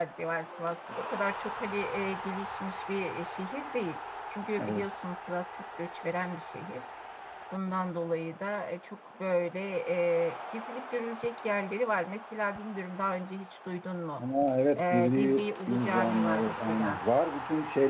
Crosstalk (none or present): present